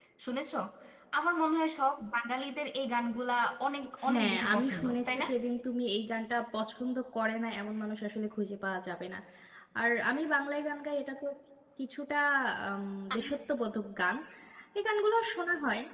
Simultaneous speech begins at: 4.0 s

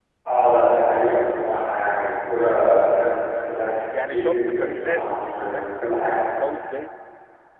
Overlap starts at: 3.9 s

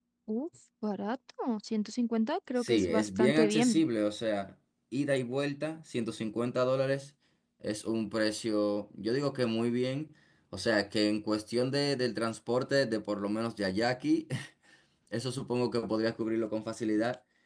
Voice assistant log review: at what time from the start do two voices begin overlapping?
2.6 s

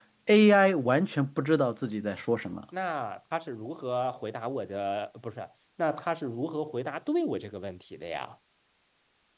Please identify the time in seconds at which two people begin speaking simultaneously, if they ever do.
none

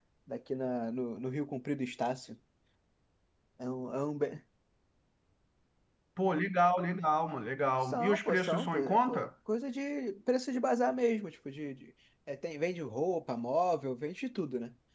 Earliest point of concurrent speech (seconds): 7.8 s

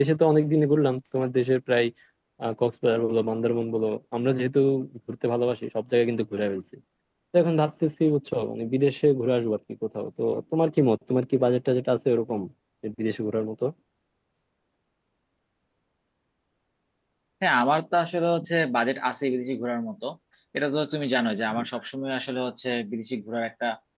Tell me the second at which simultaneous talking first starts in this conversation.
none

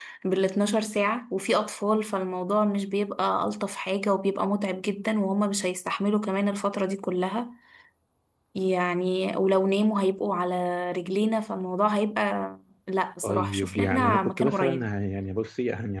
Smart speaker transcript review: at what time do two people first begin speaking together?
13.2 s

